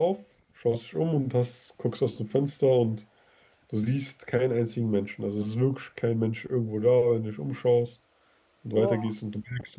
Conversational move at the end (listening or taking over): listening